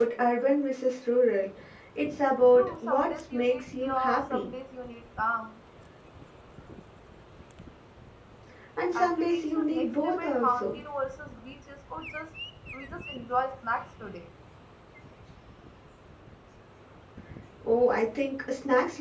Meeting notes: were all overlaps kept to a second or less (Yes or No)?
No